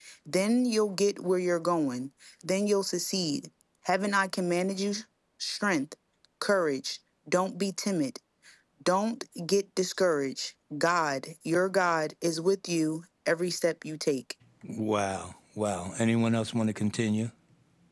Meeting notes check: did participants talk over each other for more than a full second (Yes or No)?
No